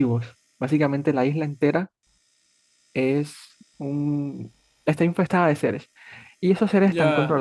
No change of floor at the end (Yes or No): Yes